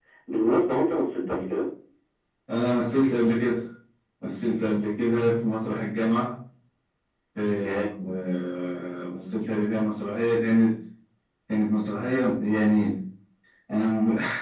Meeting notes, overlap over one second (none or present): none